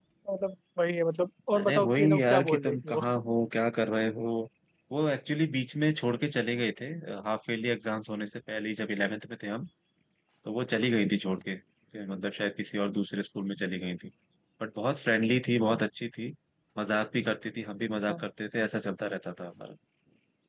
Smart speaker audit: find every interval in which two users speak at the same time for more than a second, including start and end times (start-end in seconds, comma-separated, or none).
1.6-3.0